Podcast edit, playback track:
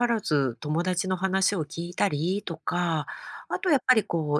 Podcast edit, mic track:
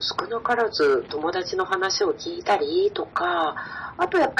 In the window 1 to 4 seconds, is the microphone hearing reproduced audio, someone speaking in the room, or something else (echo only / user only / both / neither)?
echo only